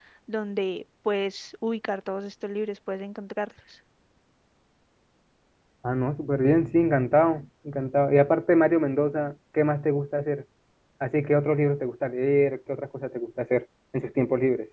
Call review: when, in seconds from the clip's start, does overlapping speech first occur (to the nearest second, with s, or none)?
none